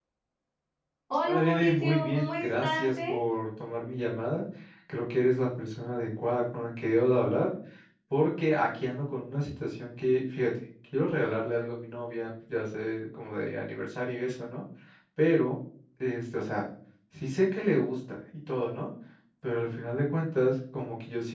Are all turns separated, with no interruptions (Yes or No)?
No